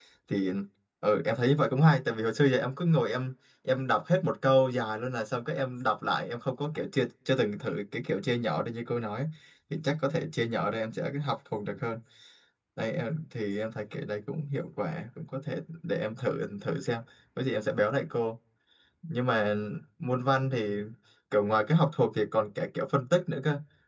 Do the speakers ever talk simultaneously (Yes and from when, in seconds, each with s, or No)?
No